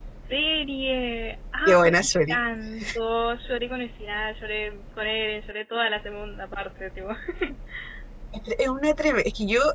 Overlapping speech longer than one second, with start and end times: none

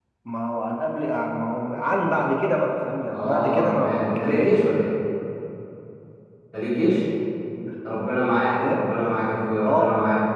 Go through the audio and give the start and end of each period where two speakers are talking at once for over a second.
3.1-4.6

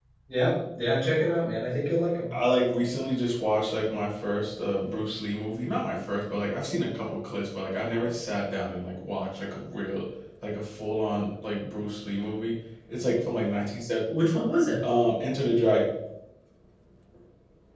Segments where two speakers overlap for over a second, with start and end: none

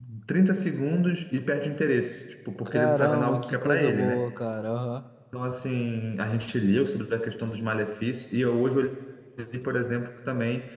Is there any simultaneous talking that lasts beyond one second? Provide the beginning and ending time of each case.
2.6-4.2

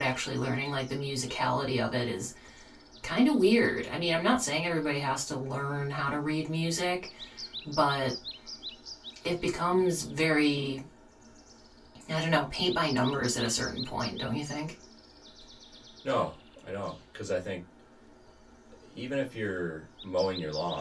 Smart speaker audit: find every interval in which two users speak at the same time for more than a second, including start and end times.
none

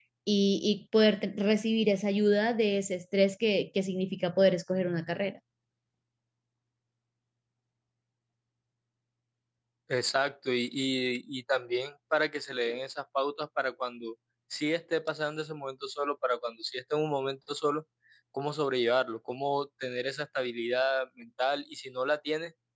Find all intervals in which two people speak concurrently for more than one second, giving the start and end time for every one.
none

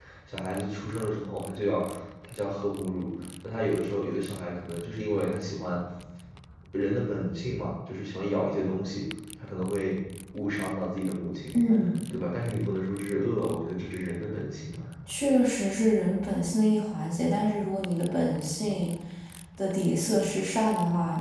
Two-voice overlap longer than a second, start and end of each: none

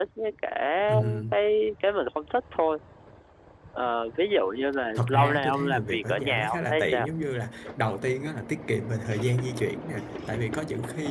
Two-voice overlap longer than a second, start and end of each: 5.0-7.1

